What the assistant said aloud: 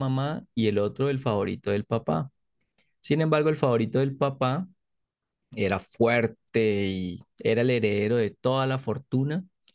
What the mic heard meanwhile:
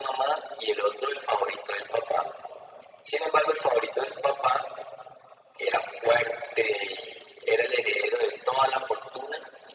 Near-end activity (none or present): none